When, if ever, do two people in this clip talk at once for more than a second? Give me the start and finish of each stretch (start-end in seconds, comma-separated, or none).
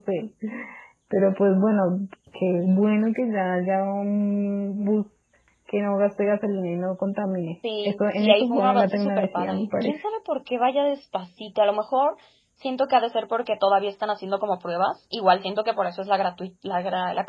7.8-10.0